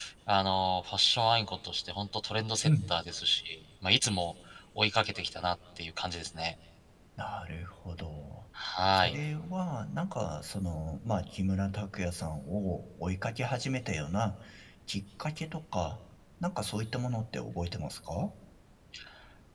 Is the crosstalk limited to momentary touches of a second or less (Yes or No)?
Yes